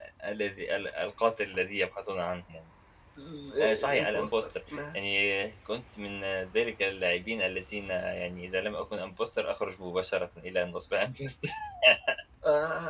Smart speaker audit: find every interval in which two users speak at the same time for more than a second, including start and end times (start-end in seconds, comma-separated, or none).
3.6-5.0